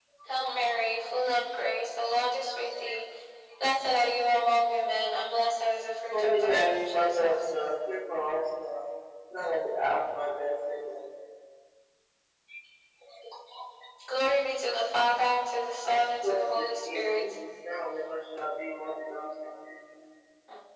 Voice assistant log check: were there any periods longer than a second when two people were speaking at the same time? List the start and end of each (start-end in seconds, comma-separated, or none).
6.1-7.4, 15.8-17.2